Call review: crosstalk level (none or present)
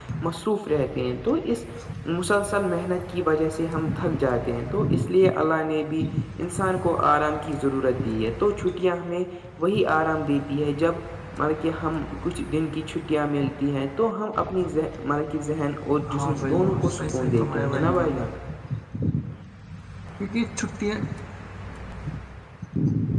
present